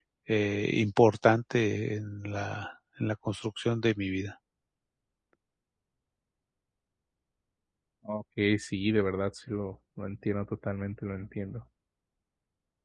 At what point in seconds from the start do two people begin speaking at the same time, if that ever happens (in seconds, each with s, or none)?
none